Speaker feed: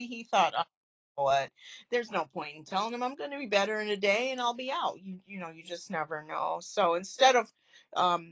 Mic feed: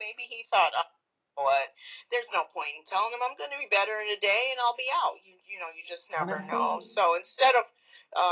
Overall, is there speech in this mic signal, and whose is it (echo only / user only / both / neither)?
both